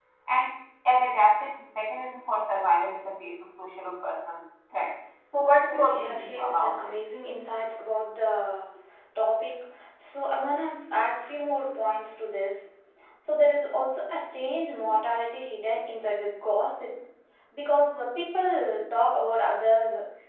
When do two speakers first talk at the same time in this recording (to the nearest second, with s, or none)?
5 s